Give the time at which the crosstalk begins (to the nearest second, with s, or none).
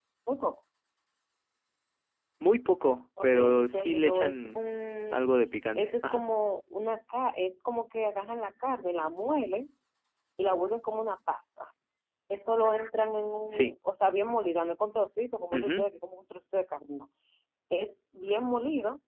3 s